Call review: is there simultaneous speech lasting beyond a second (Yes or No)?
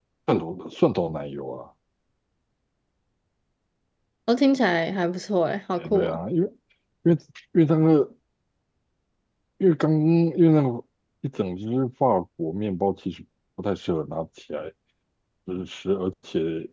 No